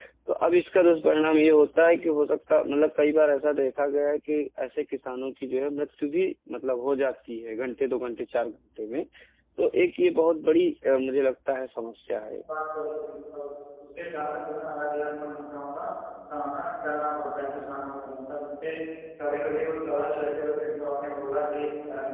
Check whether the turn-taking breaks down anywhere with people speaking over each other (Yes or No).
No